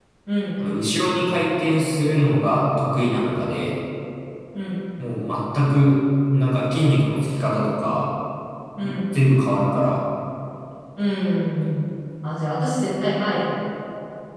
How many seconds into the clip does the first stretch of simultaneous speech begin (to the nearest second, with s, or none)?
none